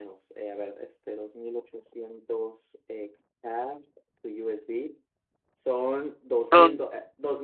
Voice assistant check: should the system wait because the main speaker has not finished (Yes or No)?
Yes